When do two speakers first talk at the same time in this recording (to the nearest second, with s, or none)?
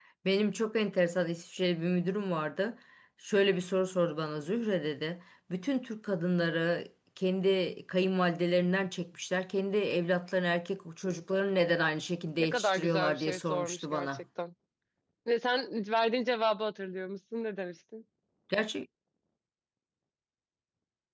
12 s